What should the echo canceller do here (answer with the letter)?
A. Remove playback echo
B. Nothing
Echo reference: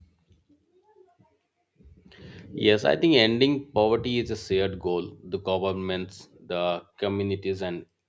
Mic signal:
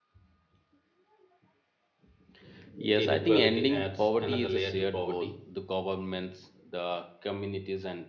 A